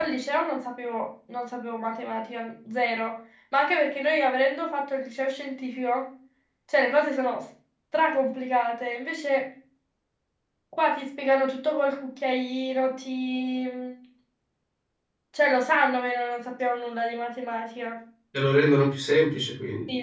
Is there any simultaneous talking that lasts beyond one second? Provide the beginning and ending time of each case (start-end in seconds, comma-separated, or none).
none